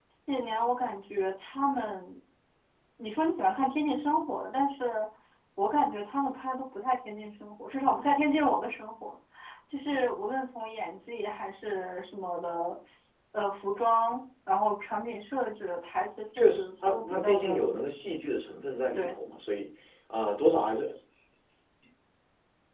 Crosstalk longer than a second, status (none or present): present